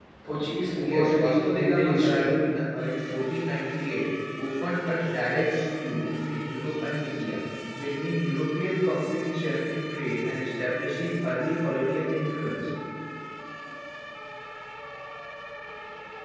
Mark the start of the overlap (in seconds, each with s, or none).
0.8 s